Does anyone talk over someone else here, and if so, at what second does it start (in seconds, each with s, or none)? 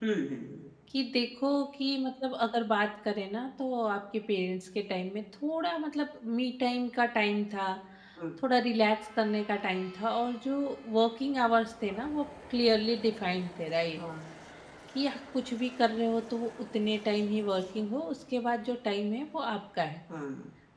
none